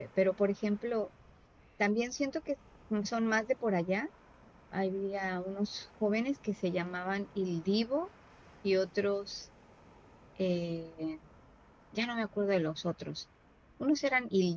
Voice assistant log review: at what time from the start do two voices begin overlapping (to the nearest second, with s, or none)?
none